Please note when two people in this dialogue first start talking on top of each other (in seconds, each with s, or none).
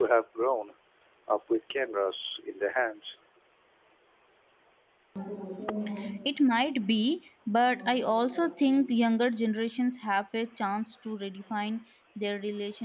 none